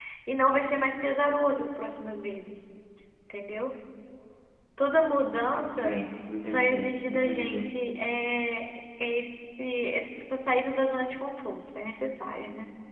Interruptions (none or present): present